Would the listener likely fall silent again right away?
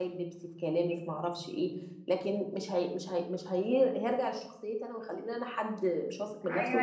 No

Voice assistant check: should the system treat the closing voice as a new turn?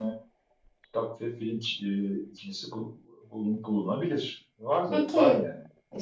Yes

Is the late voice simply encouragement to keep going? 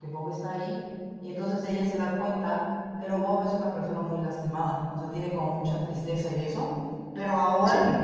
Yes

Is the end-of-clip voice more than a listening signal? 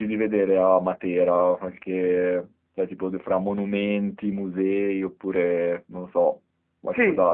Yes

